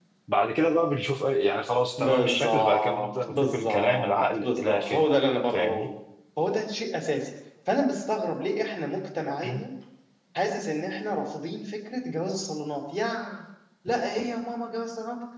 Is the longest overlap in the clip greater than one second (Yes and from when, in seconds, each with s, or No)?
Yes, from 2.0 s